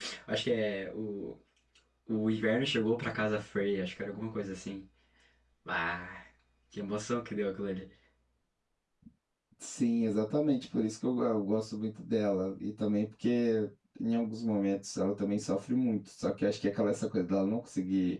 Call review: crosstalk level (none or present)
none